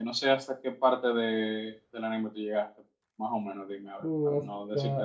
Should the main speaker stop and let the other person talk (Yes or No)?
Yes